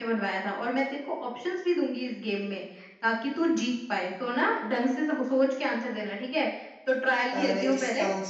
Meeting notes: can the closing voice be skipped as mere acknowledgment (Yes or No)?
No